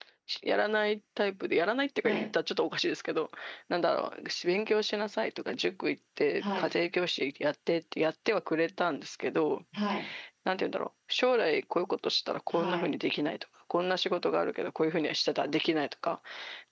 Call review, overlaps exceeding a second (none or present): none